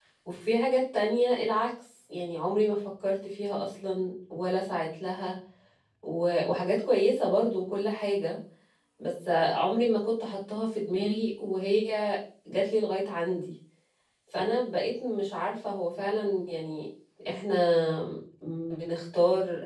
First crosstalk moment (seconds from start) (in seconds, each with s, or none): none